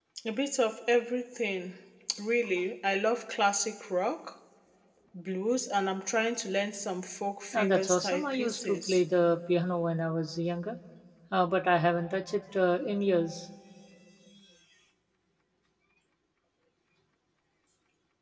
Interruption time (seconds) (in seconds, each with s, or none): 7.5 s